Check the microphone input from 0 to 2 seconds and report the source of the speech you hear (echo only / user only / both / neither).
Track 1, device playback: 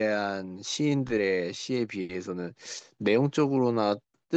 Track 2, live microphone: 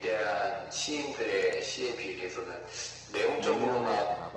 echo only